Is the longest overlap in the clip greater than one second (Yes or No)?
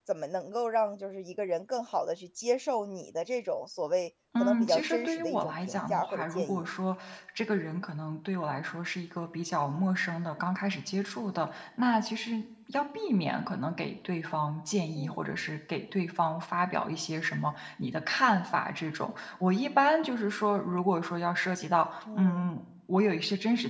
Yes